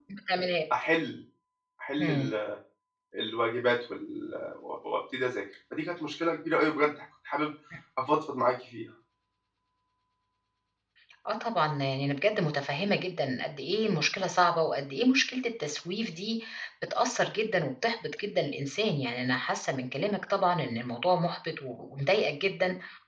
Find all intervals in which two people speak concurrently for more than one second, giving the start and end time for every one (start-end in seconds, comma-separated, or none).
none